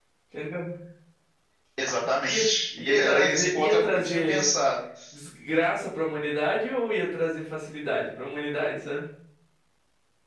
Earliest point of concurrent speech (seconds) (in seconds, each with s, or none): 2.3 s